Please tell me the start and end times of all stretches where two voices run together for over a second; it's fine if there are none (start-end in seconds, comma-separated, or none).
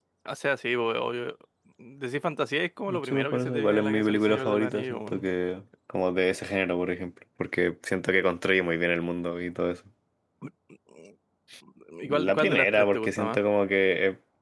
2.9-5.3, 12.1-13.4